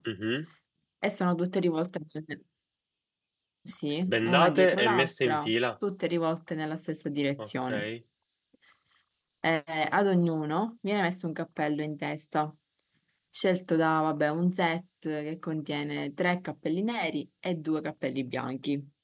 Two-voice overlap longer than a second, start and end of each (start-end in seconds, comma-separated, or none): 4.1-5.5